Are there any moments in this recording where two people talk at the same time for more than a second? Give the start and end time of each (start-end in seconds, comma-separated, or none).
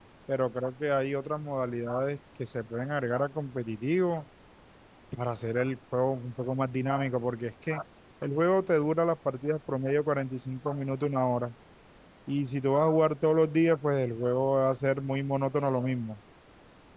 none